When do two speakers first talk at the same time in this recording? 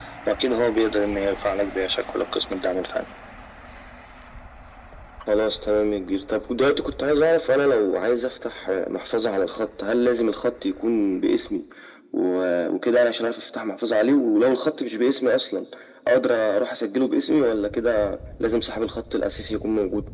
none

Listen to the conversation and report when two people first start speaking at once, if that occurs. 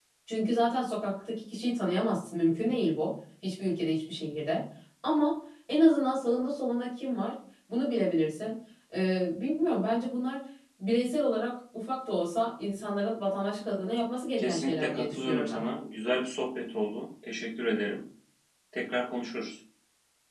14.4 s

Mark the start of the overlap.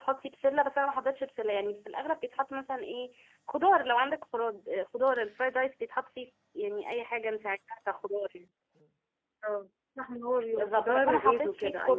10.5 s

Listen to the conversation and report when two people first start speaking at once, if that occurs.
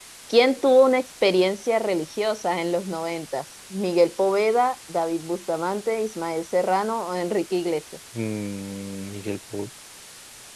none

